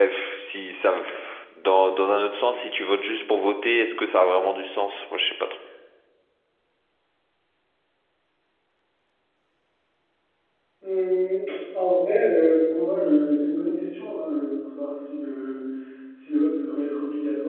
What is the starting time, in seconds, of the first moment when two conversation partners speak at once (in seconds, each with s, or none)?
none